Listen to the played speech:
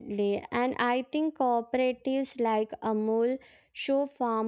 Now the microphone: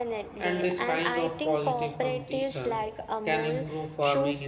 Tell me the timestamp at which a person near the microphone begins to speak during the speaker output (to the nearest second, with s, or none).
0 s